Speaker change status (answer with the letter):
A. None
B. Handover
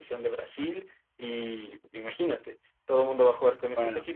A